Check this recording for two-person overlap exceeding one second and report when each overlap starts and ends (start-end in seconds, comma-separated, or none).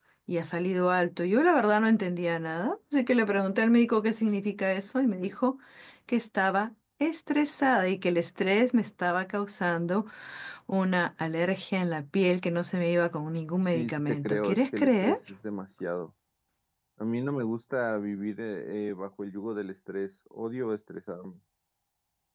13.7-15.2